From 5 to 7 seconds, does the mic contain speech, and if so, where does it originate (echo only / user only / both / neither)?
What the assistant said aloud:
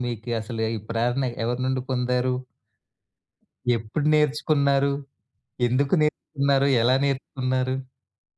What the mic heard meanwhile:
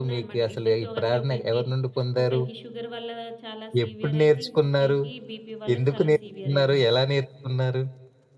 both